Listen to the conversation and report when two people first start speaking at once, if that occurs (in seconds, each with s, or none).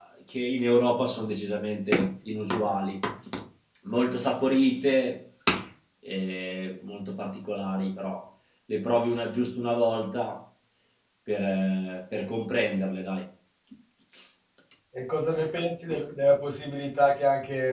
none